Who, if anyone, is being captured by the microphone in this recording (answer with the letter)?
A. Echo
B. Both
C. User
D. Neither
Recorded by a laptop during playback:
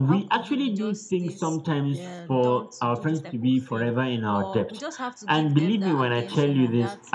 B